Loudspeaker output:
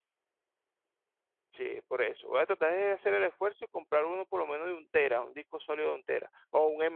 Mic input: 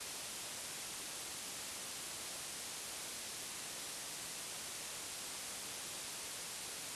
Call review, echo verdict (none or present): none